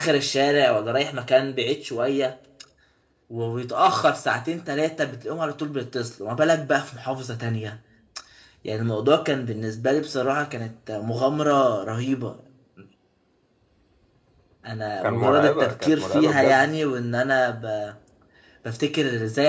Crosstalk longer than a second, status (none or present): present